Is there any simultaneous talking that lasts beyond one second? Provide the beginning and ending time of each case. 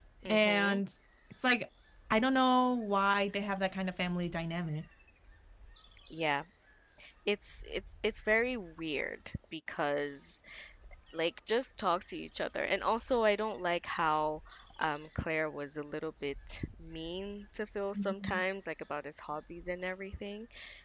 none

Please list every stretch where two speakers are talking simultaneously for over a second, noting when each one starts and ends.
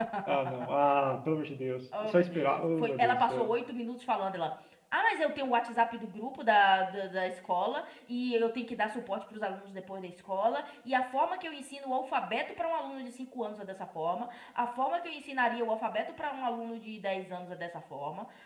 2.0-3.5

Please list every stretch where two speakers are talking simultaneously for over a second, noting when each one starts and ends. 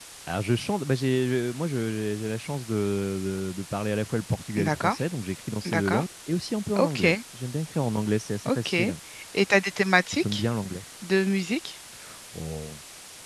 none

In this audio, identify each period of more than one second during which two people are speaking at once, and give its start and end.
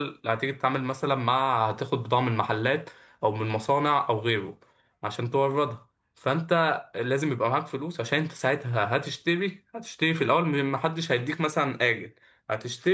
none

